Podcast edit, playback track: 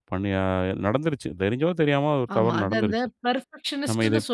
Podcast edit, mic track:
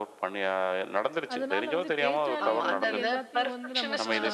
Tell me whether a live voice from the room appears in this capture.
Yes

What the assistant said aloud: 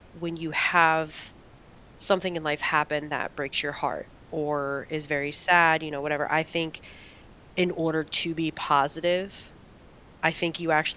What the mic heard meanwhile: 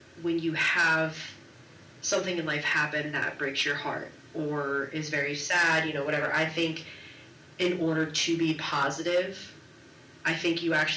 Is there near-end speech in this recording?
No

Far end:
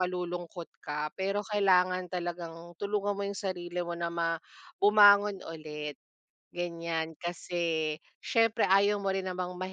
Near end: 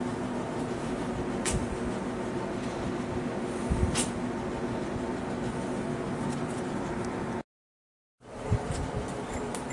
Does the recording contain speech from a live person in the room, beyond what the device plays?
No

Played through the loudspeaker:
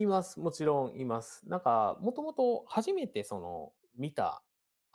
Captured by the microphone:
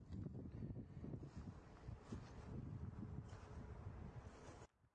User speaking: No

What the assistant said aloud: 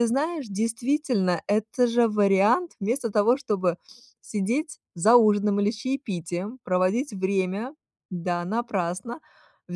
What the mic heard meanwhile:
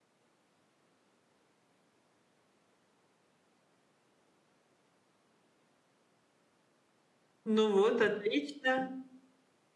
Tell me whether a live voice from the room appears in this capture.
Yes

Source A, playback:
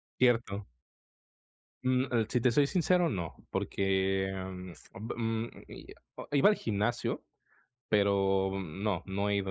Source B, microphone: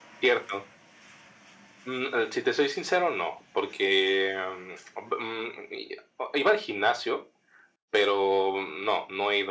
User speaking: No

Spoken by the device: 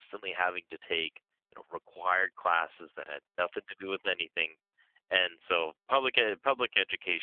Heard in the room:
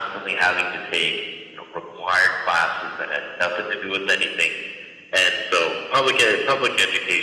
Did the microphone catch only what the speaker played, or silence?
Yes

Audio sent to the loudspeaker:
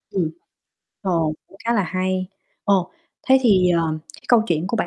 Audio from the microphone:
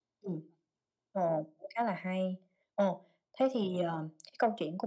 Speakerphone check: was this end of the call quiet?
Yes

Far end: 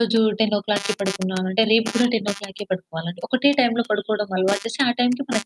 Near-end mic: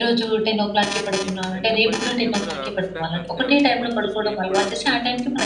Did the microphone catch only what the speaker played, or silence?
No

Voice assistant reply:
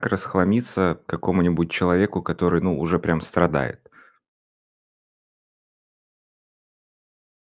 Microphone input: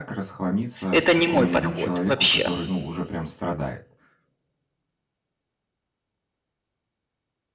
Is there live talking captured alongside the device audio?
Yes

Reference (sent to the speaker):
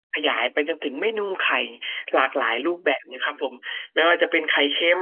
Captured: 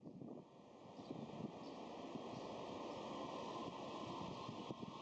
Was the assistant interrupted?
No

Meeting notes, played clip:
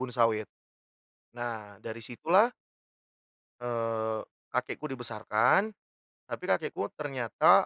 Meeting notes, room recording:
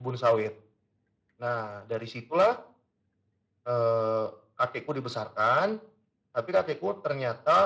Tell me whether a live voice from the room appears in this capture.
No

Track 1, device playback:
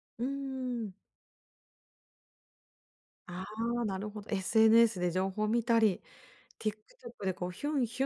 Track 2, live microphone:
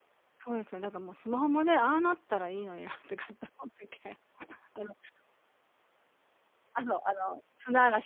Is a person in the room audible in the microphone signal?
Yes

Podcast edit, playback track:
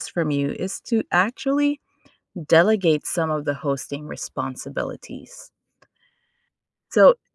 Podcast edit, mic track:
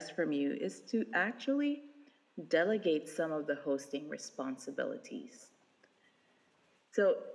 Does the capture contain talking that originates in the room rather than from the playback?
No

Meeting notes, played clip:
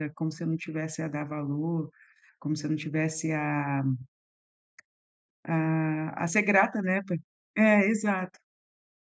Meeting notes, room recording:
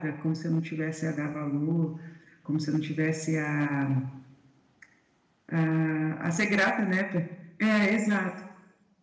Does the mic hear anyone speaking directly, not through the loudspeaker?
No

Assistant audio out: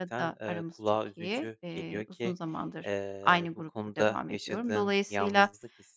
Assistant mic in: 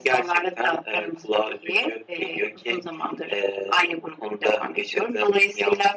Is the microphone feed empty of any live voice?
Yes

